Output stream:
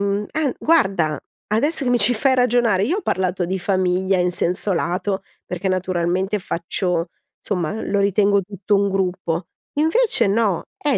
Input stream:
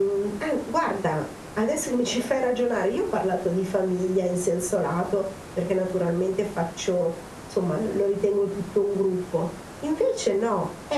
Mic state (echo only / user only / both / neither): echo only